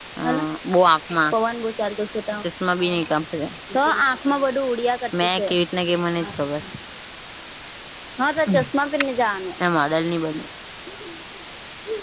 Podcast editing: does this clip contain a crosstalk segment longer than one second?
No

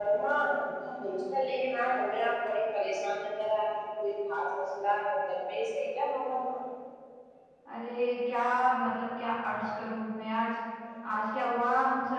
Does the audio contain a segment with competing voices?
No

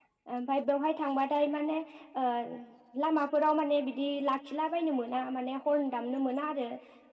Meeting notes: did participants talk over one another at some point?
No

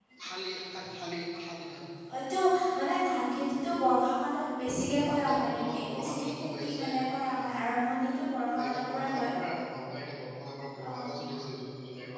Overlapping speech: Yes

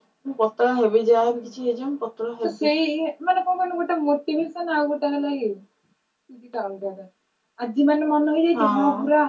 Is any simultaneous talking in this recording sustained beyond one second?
No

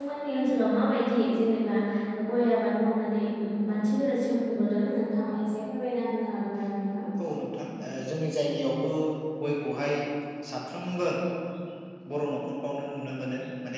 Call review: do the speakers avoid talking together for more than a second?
Yes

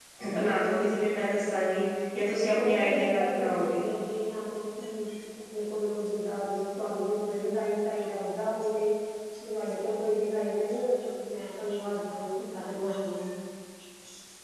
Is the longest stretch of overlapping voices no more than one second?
No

